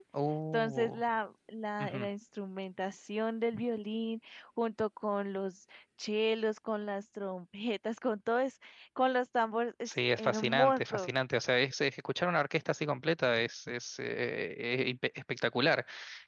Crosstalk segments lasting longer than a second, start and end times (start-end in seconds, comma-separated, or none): 9.9-11.1